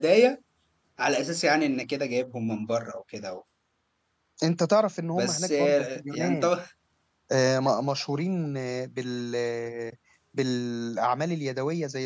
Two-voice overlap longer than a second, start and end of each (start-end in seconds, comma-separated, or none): 5.2-6.5